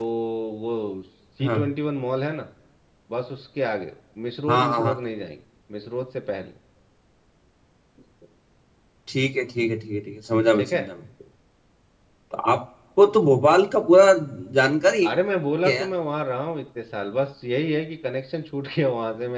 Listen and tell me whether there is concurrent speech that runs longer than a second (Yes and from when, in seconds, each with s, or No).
No